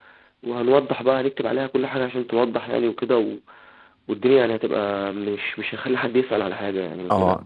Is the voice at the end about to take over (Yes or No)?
Yes